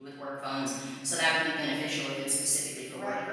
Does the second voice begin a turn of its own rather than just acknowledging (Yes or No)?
Yes